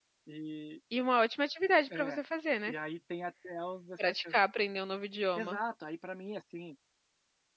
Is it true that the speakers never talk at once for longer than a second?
Yes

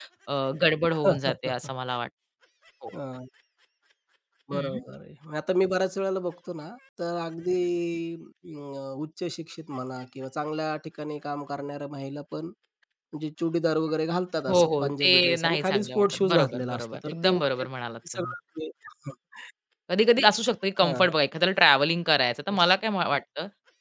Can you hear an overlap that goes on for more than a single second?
Yes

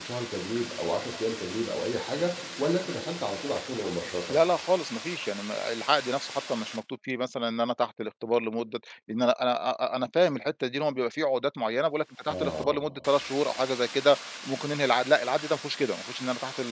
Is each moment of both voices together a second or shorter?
Yes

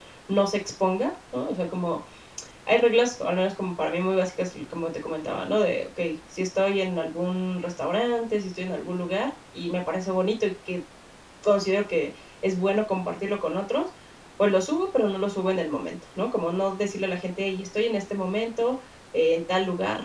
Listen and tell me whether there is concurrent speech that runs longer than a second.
No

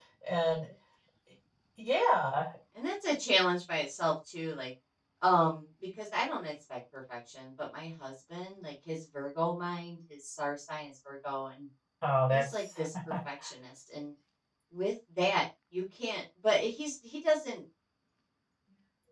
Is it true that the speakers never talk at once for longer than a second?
Yes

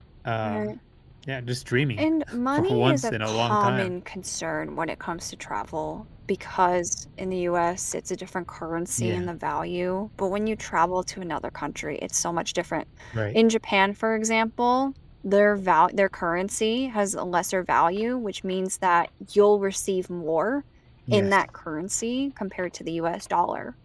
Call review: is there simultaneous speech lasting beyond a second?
Yes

